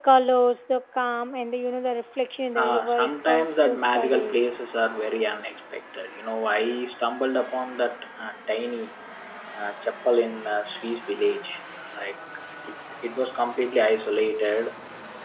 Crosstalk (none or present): present